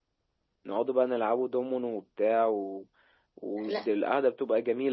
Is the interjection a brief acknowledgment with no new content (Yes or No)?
Yes